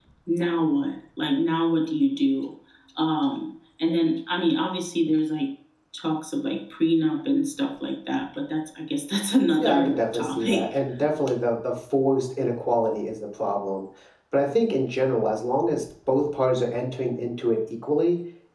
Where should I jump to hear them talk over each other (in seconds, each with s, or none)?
9.6 s